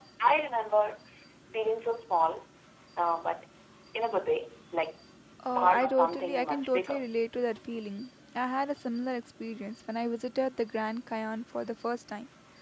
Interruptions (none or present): present